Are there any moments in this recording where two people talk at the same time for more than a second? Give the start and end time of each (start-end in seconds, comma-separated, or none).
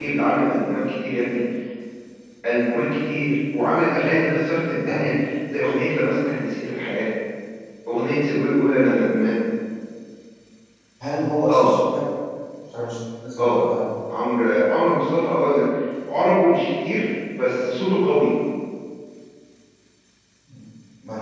none